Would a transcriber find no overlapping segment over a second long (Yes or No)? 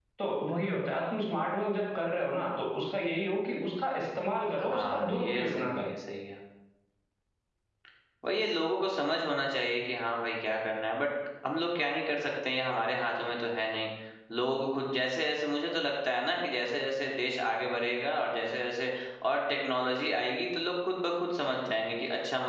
No